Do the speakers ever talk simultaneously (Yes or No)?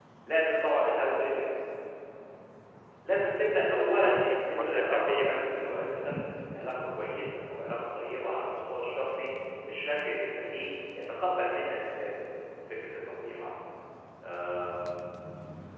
Yes